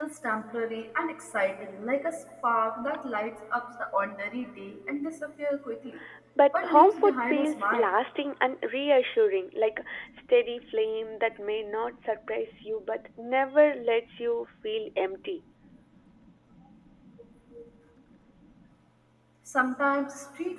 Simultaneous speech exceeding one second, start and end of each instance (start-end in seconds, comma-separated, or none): 6.5-7.9